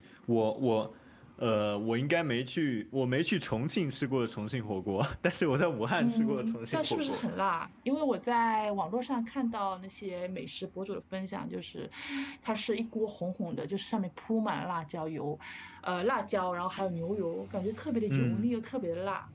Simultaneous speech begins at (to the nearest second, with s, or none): 6 s